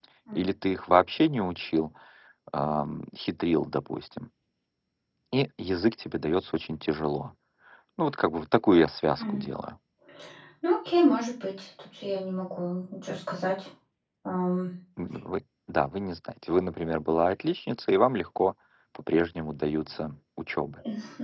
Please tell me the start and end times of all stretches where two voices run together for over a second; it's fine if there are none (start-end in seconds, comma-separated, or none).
none